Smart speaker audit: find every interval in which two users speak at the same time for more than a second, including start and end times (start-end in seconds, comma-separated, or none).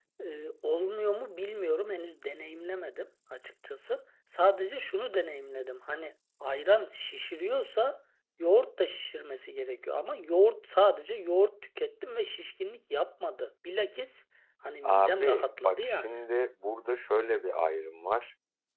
14.8-16.2